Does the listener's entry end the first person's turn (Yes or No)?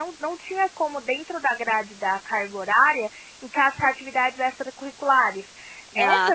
No